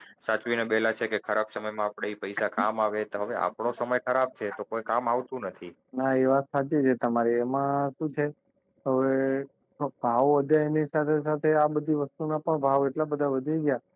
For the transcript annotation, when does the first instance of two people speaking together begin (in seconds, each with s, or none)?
none